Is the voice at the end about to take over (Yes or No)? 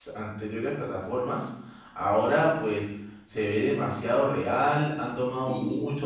No